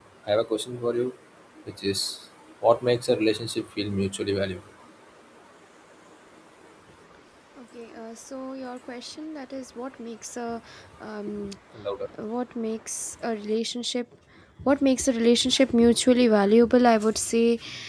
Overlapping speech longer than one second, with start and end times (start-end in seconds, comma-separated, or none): none